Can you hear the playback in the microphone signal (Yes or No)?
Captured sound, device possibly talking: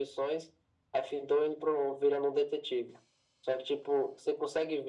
Yes